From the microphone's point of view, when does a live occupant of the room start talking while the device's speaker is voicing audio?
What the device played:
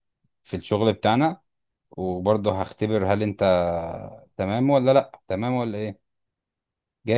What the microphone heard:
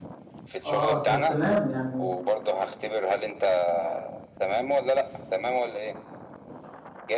1 s

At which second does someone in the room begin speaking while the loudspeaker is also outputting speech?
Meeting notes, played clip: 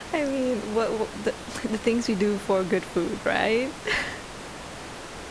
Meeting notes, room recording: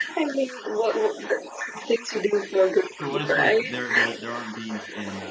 3 s

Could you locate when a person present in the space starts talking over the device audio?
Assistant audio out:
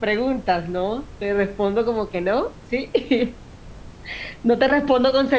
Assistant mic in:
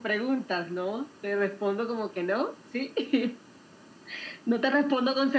none

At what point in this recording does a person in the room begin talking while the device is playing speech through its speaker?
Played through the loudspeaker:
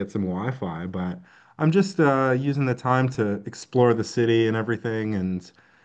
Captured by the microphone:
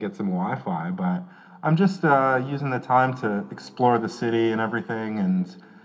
none

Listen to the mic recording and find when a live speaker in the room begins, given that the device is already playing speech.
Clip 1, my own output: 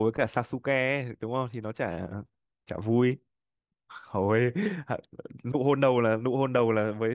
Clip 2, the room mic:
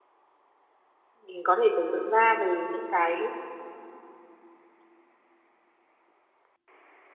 1 s

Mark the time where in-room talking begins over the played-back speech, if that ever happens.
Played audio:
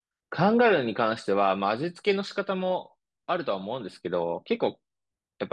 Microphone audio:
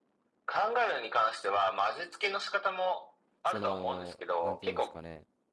3 s

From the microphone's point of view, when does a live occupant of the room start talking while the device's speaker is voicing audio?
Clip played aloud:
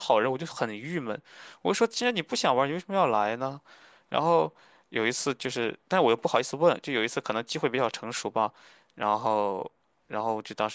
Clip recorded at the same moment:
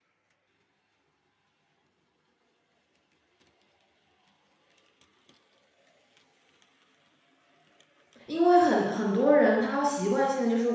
8 s

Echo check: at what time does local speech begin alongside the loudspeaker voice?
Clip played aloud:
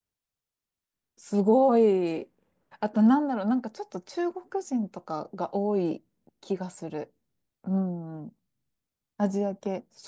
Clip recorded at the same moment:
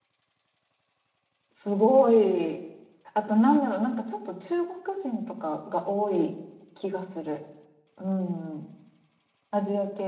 none

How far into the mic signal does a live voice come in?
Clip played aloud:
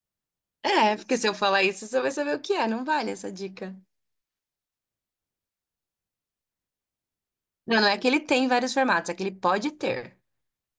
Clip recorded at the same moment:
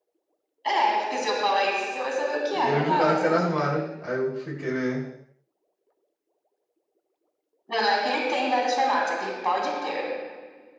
3 s

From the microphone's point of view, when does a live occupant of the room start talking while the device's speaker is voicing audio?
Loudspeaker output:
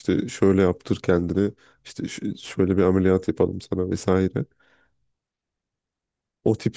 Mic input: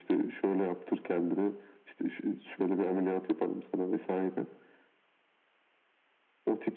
none

